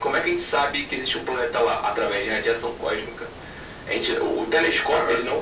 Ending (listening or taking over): listening